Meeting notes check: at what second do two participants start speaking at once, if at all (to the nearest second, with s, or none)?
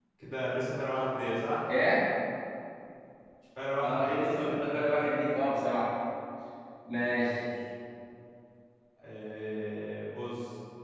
4 s